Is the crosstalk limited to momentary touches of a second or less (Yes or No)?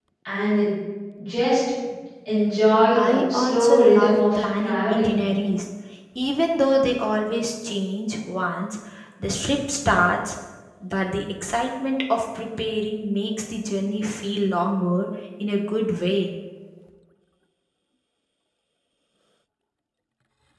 No